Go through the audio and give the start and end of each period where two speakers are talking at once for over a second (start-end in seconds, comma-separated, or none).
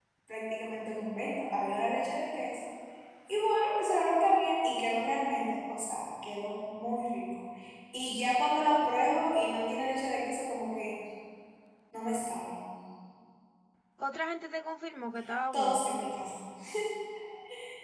none